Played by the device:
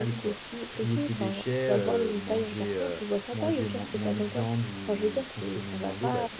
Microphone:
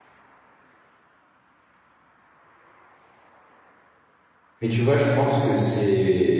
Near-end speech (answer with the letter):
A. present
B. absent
A